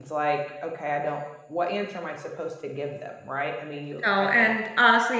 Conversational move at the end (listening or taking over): taking over